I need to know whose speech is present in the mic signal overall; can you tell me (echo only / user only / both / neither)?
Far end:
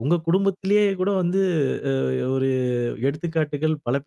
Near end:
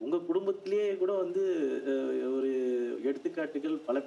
echo only